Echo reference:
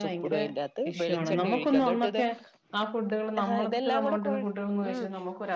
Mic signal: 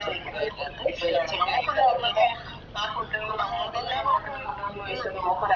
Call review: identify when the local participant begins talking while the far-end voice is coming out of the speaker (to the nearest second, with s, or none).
none